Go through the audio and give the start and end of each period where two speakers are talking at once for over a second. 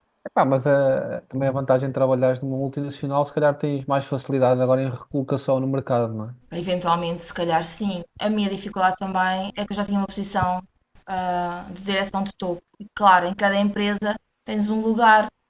none

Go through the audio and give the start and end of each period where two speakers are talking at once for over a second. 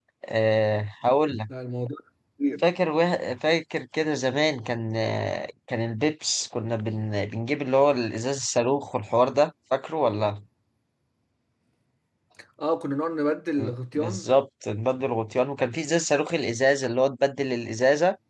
none

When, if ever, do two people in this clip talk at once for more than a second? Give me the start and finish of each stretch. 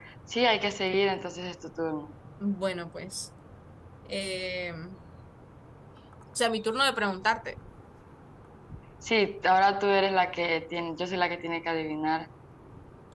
none

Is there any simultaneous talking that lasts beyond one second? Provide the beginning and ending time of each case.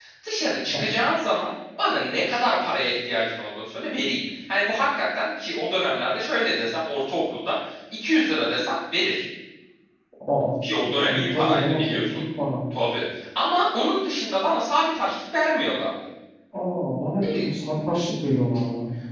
10.9-12.2

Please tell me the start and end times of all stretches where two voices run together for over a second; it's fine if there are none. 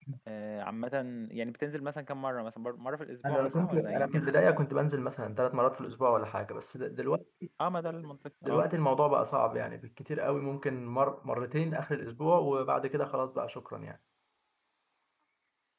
3.3-4.6

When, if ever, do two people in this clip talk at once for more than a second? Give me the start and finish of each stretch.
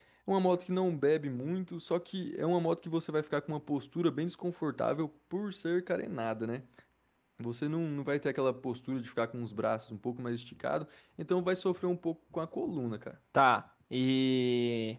none

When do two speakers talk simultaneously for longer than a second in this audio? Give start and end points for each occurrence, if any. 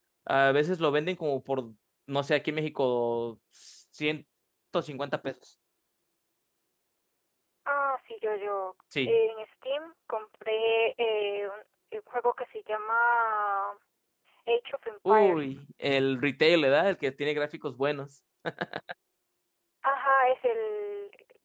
none

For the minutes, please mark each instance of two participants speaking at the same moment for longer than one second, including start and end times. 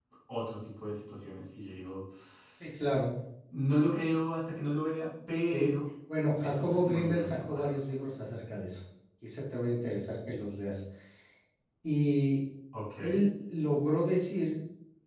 6.4-7.7

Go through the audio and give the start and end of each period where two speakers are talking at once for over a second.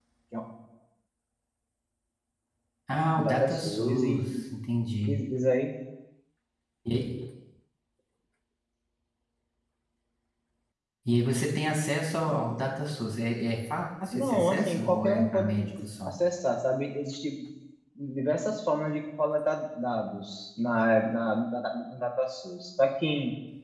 3.2-4.4, 14.1-15.5

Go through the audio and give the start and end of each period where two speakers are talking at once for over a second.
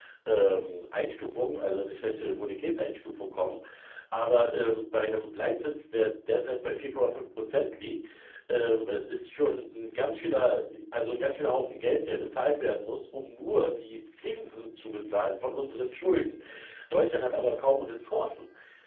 none

